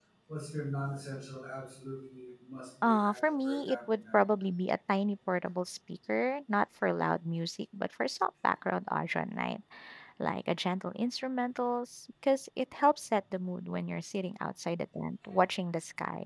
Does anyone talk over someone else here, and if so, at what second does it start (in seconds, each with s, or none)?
2.8 s